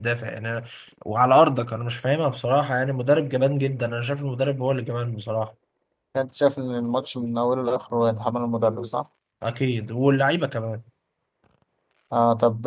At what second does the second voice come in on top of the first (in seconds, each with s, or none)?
none